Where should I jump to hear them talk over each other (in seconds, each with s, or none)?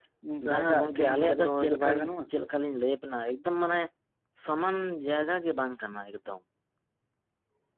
0.5 s